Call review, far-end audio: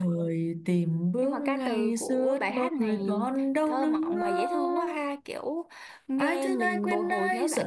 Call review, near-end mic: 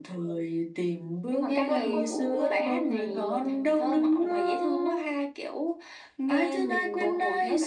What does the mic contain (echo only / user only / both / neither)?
both